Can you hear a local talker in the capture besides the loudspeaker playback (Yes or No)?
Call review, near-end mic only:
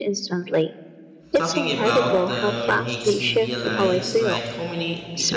Yes